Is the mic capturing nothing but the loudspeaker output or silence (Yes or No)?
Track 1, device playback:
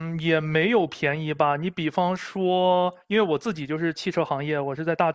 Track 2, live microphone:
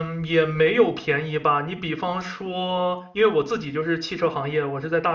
Yes